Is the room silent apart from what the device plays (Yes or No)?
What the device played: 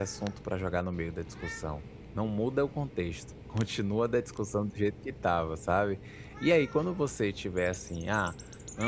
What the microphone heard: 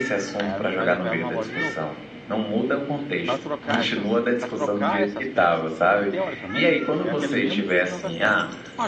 No